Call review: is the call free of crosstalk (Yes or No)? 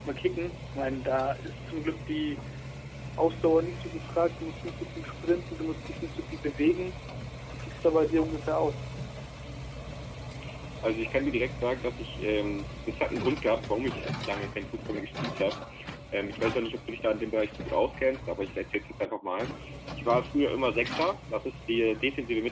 Yes